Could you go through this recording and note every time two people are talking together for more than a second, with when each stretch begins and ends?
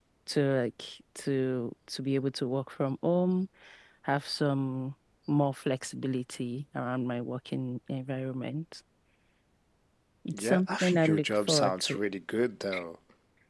10.3-12.0

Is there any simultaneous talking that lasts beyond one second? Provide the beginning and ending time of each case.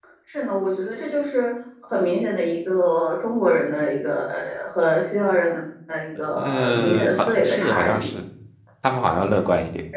6.3-8.1

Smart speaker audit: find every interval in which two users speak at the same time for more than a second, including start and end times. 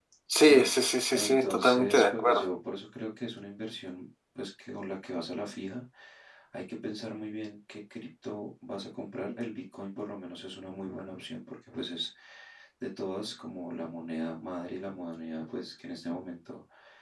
1.1-2.5

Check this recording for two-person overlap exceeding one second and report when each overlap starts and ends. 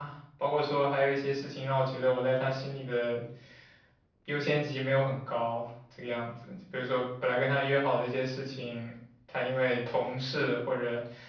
none

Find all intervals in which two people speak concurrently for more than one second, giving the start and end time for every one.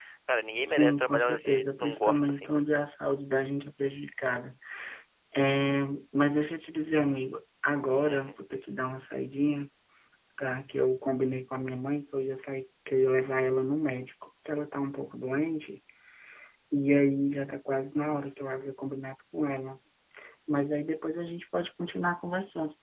0.6-2.6

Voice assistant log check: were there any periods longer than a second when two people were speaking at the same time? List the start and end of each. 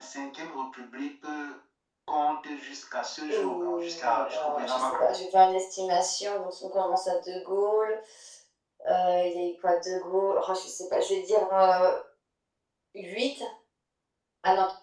3.3-5.0

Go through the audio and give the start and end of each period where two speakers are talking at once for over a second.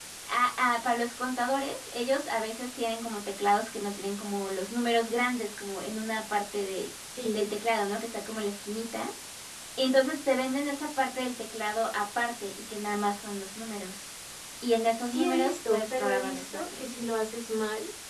15.0-16.8

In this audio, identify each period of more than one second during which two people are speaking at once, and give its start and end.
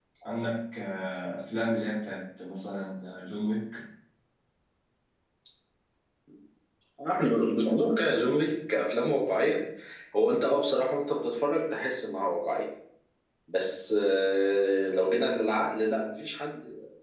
none

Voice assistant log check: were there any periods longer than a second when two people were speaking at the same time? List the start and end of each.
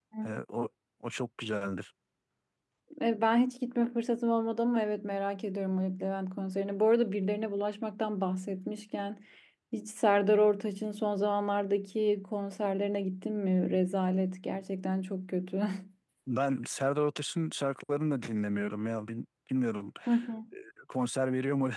none

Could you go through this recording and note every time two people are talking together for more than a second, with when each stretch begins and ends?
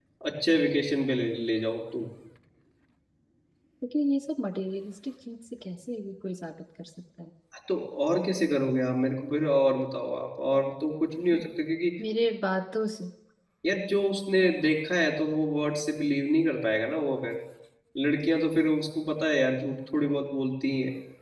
none

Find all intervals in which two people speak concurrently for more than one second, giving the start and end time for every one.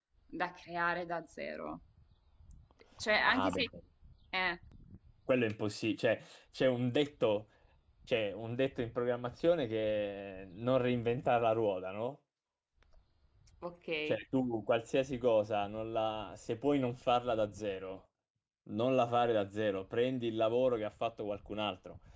none

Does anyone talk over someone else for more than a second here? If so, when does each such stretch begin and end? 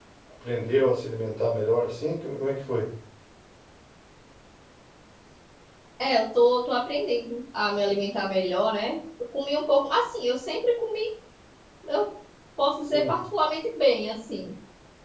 none

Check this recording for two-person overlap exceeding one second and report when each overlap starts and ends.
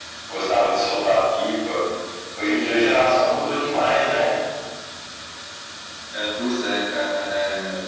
none

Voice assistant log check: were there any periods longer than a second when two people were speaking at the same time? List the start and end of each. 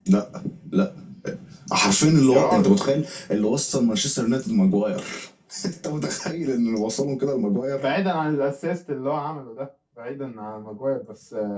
none

